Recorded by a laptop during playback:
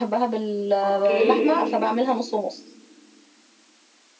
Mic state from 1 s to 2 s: both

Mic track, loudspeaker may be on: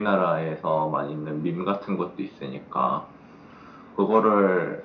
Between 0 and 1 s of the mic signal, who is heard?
echo only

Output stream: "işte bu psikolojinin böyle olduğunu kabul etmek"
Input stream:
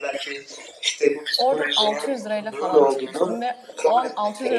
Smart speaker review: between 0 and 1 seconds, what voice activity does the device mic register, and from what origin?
echo only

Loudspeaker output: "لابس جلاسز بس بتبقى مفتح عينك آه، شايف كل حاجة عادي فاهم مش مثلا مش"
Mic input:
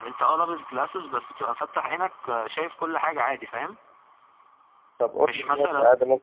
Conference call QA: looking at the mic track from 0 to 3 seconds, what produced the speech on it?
echo only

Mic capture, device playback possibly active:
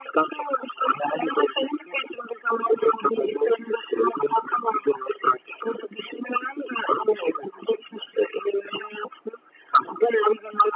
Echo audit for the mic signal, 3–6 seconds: echo only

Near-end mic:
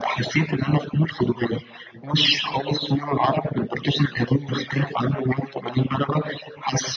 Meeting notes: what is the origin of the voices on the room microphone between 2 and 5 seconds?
echo only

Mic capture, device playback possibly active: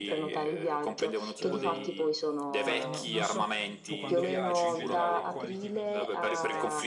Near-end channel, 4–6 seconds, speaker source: both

